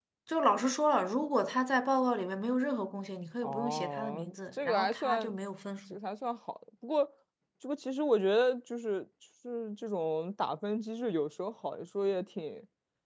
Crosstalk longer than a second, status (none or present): present